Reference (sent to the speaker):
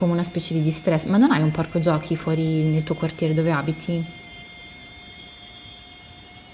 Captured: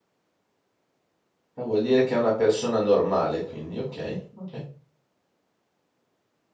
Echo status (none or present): none